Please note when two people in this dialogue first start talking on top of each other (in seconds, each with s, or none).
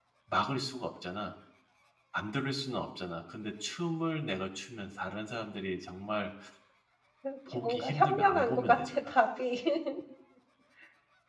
7.5 s